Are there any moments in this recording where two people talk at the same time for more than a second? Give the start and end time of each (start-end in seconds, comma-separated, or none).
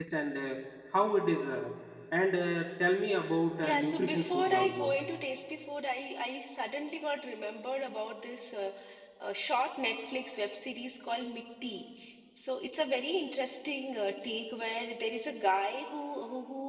3.6-4.9